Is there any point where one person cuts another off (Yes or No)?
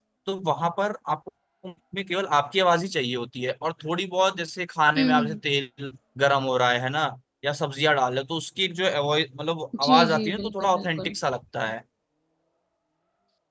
Yes